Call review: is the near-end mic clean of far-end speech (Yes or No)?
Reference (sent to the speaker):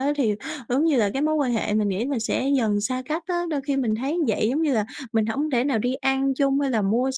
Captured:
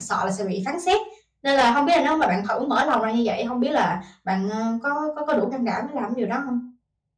Yes